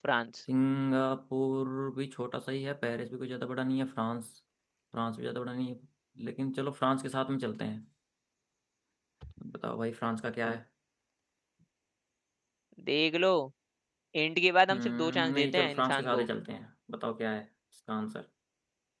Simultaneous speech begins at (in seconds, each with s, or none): 14.7 s